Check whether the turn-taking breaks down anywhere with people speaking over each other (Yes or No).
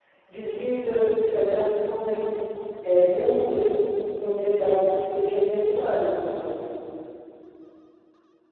No